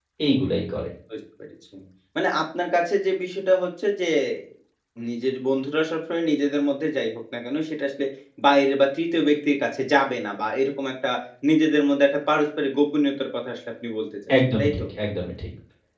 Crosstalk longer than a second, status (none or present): none